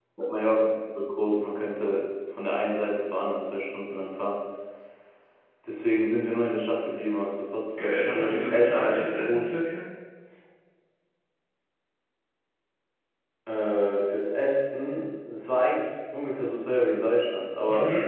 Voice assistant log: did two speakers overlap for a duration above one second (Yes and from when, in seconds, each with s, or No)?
Yes, from 7.8 s